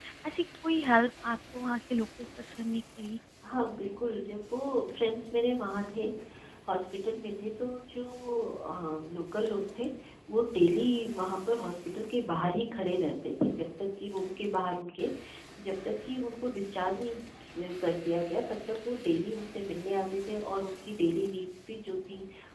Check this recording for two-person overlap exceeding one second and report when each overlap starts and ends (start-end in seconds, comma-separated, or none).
none